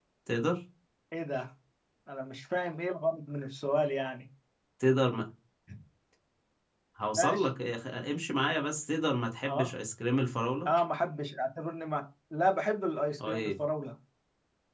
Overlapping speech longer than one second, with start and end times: none

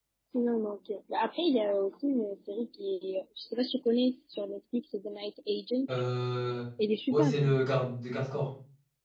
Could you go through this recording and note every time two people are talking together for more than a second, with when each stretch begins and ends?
none

